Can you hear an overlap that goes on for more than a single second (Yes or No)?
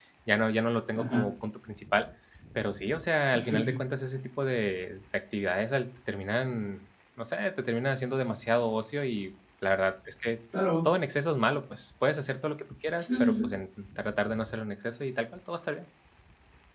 No